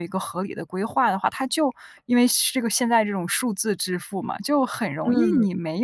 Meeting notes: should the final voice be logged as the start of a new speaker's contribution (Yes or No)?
No